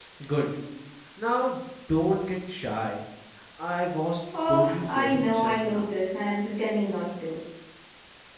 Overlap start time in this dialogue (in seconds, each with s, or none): 4.5 s